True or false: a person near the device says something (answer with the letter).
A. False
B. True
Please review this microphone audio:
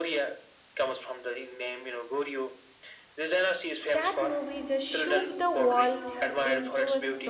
B